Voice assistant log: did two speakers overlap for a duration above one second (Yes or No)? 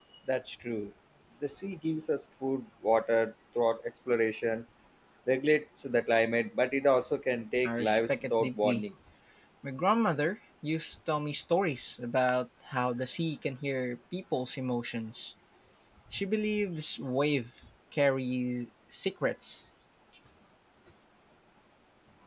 Yes